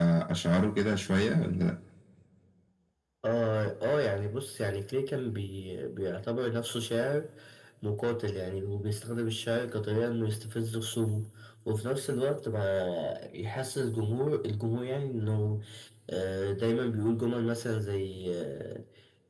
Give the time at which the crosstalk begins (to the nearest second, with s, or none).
none